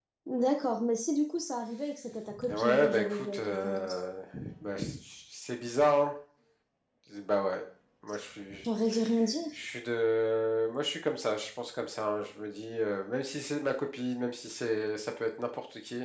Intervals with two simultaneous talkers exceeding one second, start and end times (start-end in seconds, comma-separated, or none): 2.5-3.9